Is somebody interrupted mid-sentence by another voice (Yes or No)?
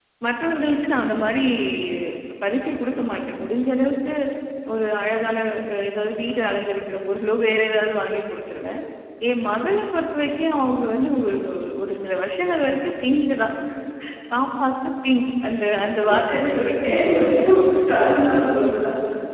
Yes